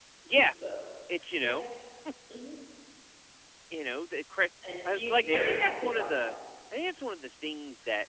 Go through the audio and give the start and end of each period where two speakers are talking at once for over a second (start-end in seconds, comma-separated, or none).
5.1-6.3